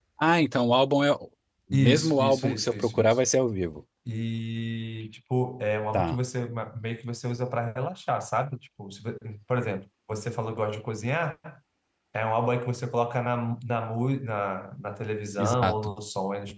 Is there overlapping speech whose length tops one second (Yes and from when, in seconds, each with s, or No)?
Yes, from 1.7 s